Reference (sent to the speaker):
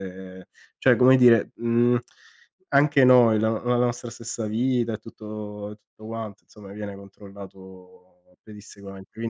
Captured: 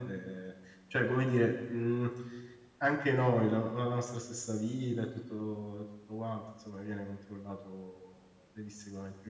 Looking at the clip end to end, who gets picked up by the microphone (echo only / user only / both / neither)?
echo only